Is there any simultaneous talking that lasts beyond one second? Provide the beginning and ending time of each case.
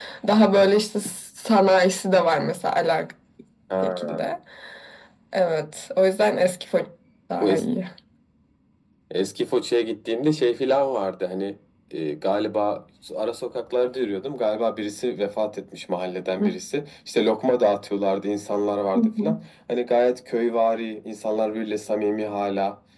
none

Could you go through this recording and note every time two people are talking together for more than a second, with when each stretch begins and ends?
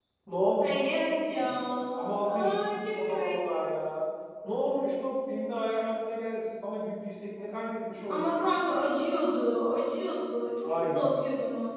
2.2-3.5

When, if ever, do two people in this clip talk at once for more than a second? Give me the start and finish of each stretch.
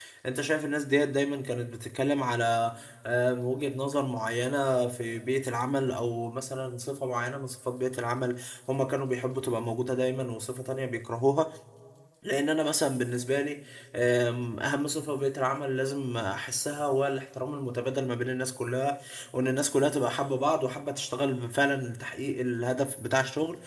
none

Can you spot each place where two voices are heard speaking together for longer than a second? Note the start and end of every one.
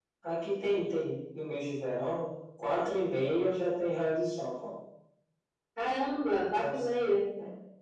none

